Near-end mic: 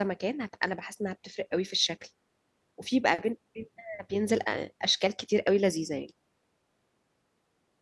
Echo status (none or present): none